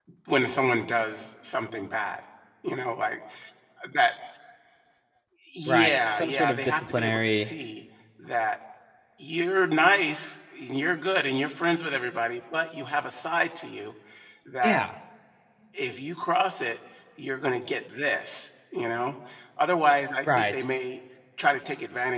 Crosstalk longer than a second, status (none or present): present